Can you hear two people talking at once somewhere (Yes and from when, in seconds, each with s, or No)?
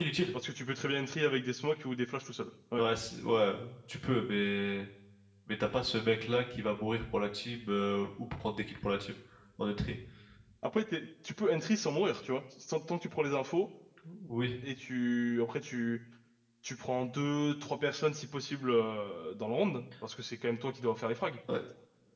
No